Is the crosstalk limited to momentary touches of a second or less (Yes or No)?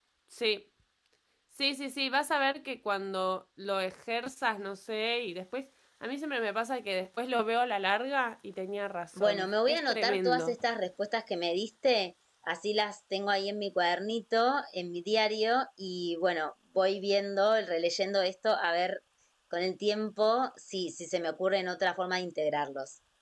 No